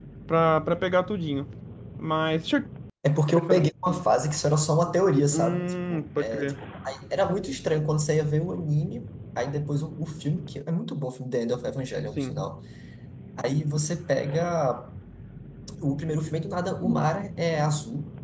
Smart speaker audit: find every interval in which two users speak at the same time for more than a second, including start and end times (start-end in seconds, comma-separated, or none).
5.3-6.5